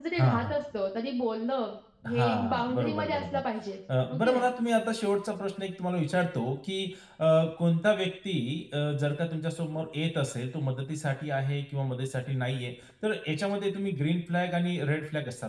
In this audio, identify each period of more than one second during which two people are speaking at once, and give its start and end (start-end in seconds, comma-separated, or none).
2.1-3.4